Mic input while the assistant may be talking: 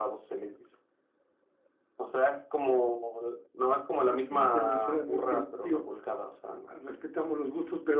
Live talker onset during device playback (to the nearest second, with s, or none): none